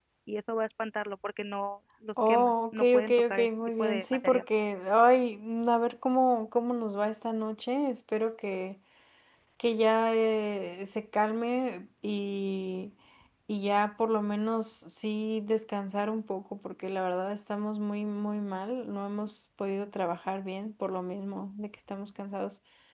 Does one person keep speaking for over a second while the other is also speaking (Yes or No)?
Yes